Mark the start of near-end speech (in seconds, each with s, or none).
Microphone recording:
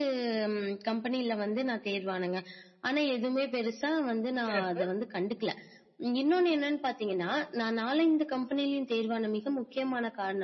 4.5 s